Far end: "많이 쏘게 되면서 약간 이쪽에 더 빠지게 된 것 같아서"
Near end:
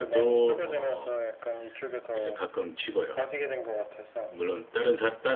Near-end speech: present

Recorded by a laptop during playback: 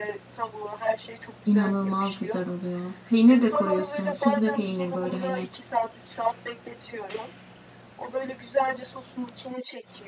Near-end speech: present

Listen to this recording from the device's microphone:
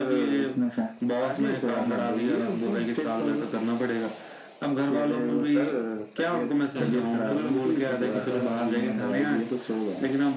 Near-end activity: present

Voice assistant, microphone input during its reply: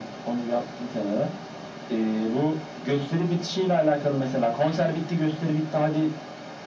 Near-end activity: none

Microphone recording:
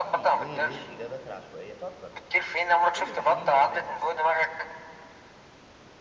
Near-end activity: present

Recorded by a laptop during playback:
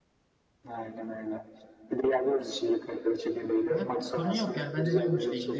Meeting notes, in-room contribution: present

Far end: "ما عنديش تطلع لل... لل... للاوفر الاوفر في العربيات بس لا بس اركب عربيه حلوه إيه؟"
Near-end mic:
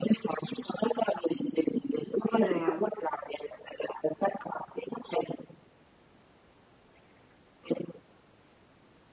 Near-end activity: present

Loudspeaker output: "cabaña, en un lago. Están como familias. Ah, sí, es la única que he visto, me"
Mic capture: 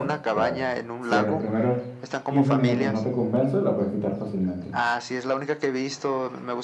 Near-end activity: present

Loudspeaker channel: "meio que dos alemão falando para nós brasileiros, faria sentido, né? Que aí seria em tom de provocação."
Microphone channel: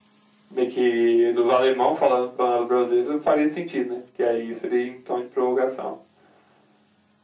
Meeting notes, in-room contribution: none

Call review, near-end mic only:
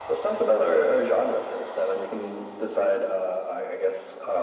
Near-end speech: none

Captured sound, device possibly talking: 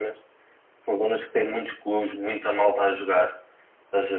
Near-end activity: none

